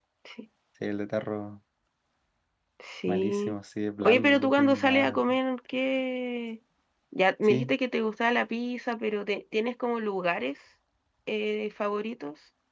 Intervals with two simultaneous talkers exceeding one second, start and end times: 4.0-5.4

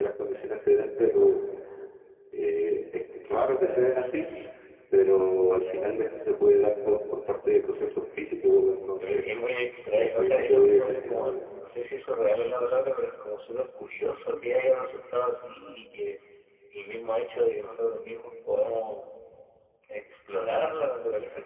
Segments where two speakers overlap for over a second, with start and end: 9.9-11.5

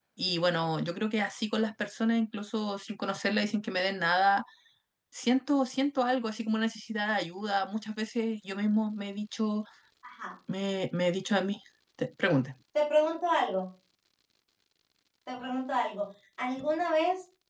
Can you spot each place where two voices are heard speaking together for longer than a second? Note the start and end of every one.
none

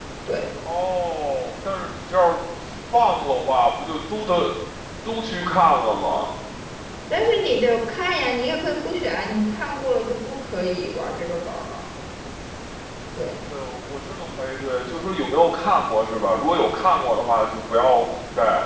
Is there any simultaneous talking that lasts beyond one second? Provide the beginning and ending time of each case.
none

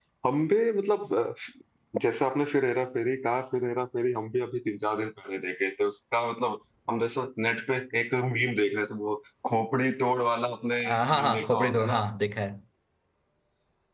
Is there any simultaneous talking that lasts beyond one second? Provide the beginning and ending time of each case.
10.8-12.0

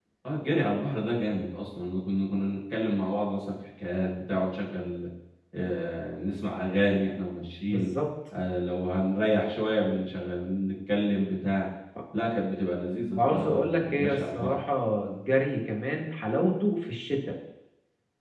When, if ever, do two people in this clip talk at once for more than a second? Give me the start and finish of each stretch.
13.1-14.6

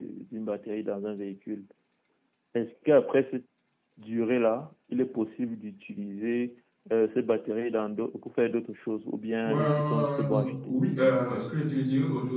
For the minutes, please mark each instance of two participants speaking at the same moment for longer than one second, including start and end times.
9.5-10.8

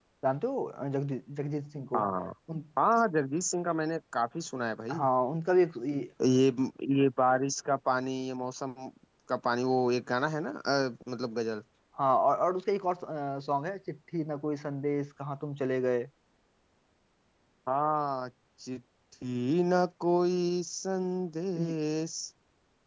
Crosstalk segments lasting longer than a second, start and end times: none

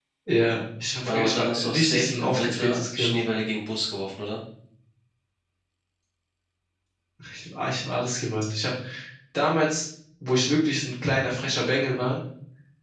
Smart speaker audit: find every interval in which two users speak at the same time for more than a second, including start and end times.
1.1-3.2

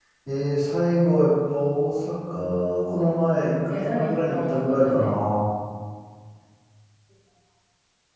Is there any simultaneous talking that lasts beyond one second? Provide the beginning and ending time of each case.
3.7-5.1

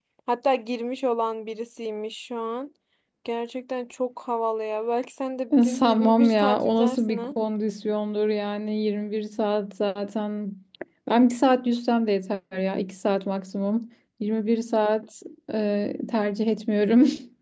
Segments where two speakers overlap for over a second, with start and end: 5.7-7.3

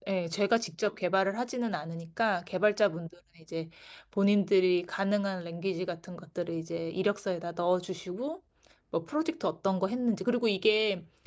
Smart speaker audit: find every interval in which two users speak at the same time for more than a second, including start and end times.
none

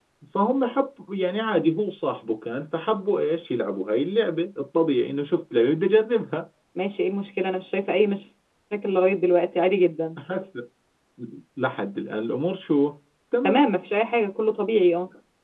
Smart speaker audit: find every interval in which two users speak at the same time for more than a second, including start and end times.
none

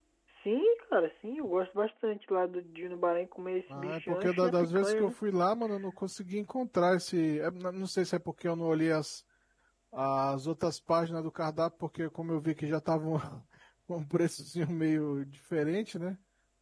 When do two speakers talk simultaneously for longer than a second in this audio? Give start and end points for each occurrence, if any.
3.7-5.1

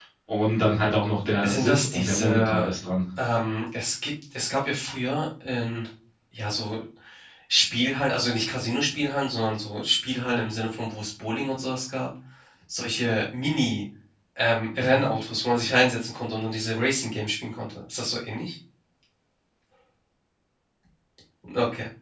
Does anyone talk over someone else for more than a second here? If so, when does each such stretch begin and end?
1.4-2.7

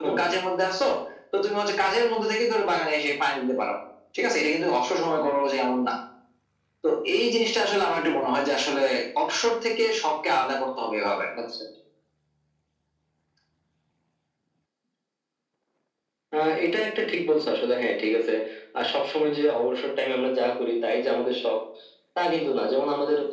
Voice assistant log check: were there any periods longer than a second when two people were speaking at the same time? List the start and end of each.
none

